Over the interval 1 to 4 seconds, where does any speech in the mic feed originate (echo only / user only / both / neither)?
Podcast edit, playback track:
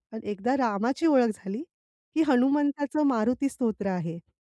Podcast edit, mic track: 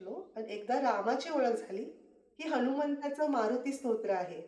echo only